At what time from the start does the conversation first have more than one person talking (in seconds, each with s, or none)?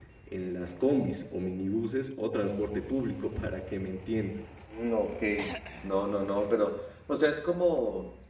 none